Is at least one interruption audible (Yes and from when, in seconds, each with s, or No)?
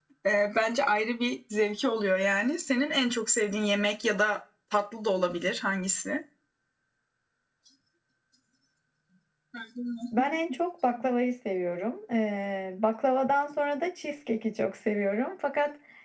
No